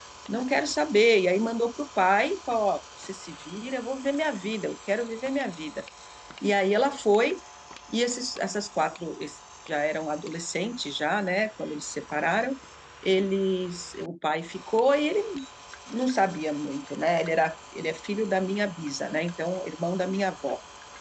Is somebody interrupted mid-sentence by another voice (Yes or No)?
No